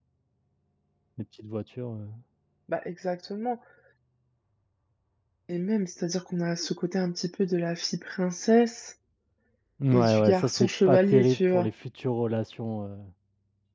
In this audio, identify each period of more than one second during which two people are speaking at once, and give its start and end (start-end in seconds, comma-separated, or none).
9.9-11.7